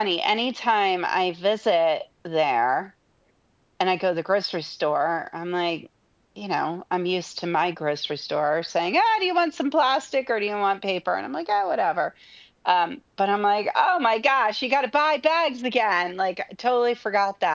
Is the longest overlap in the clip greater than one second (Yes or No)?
No